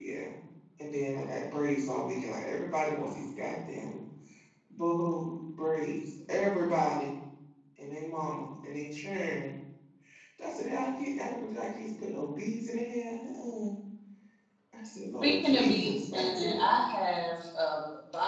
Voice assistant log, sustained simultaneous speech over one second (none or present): present